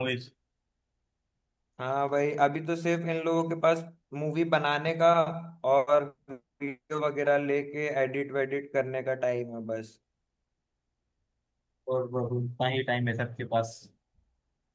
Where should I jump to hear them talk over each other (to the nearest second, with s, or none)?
none